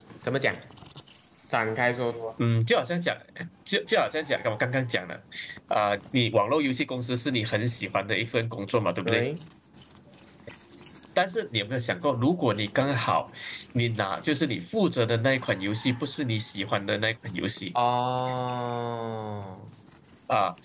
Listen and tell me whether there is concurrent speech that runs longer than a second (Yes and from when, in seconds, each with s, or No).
No